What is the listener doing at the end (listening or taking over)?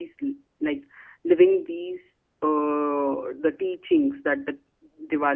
listening